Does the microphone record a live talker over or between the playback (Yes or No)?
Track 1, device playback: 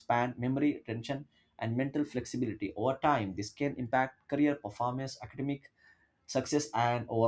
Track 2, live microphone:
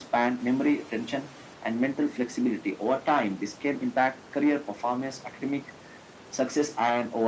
No